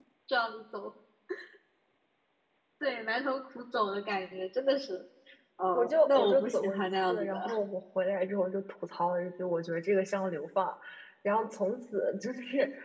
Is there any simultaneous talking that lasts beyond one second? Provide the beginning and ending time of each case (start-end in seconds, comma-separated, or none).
5.7-7.4